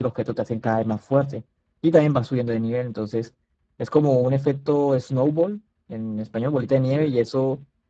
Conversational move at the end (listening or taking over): listening